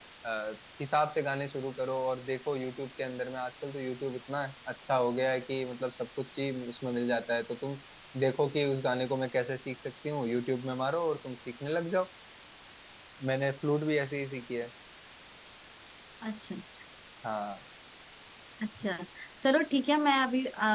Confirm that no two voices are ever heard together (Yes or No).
Yes